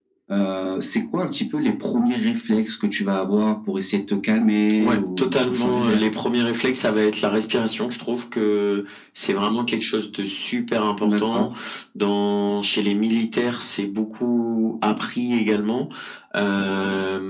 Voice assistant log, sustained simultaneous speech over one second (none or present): present